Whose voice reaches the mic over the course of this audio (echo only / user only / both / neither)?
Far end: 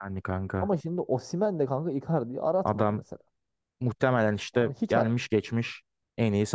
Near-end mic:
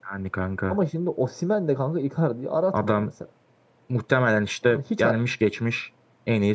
echo only